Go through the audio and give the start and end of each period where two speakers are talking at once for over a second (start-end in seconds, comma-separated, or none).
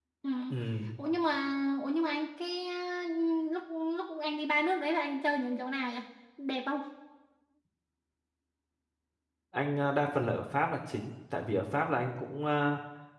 none